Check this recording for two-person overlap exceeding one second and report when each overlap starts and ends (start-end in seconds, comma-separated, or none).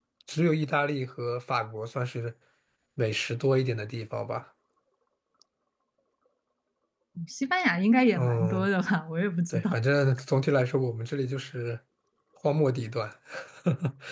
none